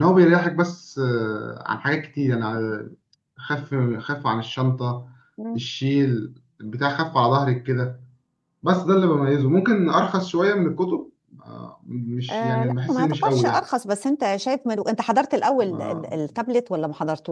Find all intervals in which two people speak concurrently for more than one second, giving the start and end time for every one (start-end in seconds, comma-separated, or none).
12.3-13.6